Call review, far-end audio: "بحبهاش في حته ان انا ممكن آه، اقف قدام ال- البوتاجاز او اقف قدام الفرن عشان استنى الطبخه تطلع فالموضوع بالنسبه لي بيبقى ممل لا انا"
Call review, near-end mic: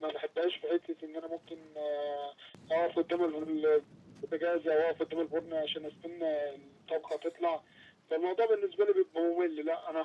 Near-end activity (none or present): none